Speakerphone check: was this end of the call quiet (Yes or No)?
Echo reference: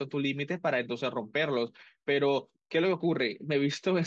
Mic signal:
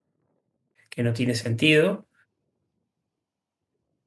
No